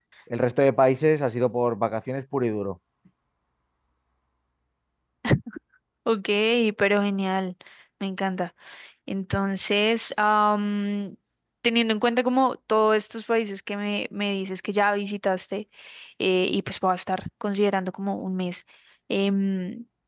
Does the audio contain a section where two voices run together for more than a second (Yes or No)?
No